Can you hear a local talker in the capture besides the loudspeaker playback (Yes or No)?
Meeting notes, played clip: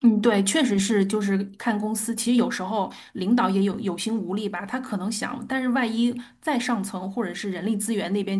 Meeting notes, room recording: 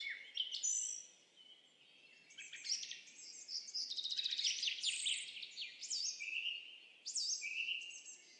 No